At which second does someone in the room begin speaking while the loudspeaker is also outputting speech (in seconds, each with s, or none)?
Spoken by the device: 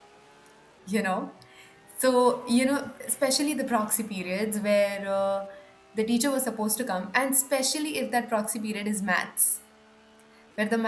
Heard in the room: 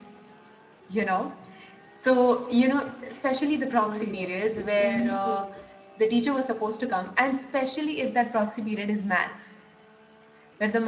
3.8 s